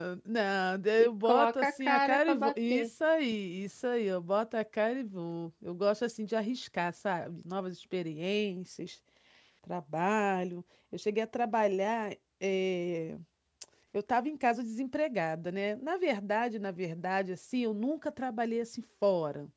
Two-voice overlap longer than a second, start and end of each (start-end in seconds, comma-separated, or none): 1.0-2.9